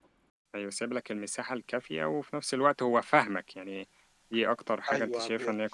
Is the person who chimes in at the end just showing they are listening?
No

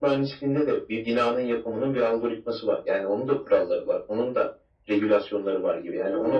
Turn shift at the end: Yes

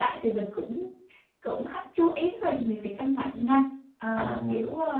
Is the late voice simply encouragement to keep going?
Yes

